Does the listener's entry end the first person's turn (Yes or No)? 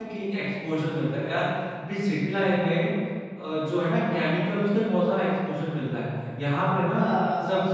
No